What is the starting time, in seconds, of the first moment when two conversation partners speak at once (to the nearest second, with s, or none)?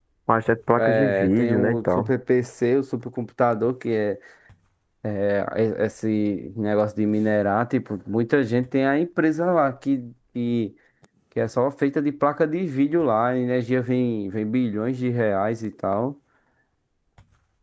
1 s